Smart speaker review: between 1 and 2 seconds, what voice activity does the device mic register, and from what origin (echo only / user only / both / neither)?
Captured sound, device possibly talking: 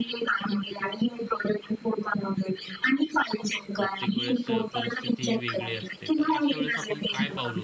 echo only